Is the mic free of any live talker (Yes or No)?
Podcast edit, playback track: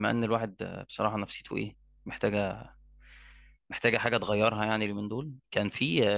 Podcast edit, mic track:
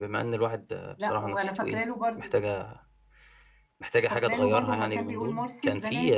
No